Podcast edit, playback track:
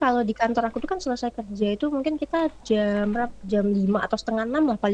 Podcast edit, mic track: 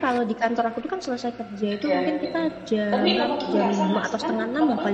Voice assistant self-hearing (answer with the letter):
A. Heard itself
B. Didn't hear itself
A